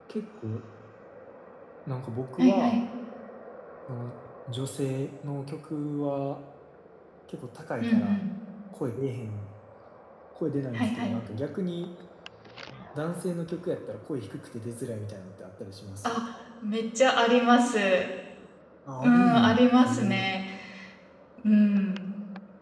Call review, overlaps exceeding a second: present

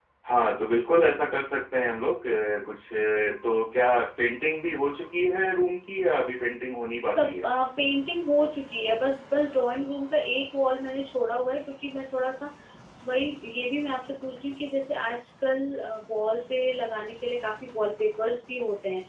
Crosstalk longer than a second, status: none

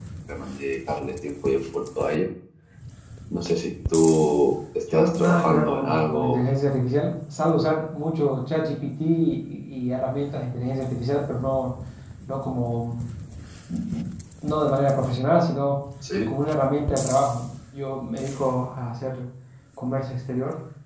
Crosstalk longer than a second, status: present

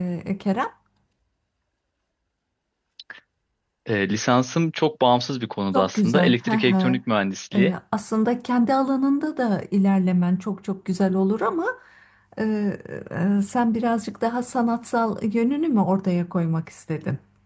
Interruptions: present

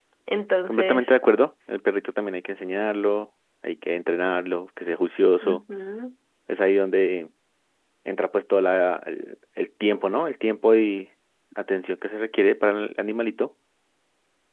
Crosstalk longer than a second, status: none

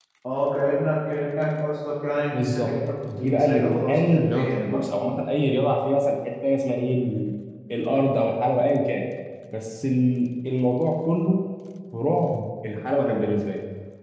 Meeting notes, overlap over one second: present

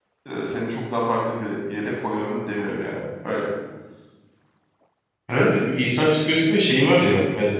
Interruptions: none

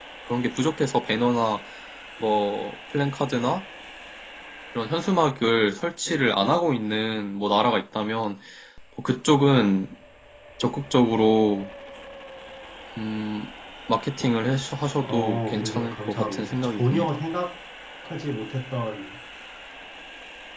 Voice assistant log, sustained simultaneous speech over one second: present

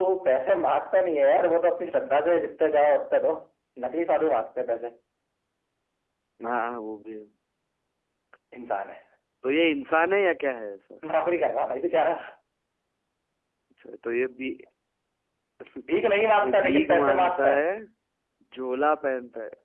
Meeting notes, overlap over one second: present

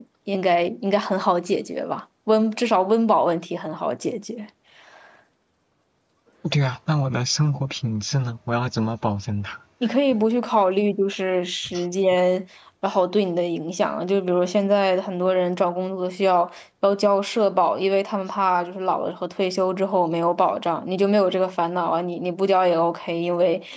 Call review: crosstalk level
none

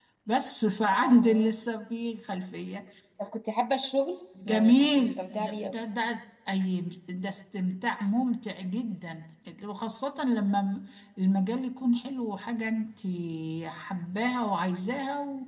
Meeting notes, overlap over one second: present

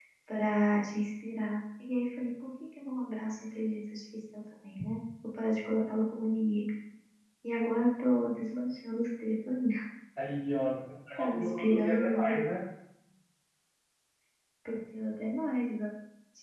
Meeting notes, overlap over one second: present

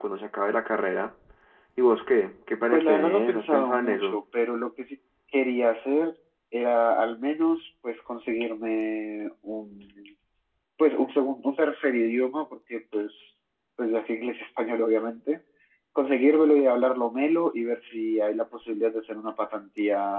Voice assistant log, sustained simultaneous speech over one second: present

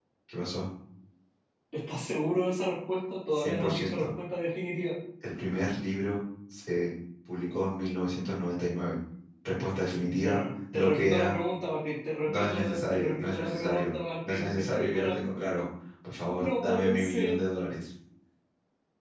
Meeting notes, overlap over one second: present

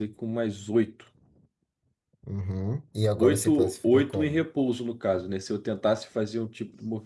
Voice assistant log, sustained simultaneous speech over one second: present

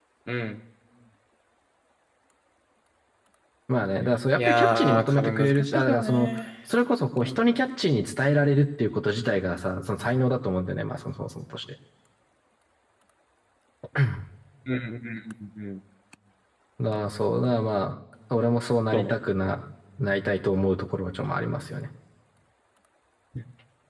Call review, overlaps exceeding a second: present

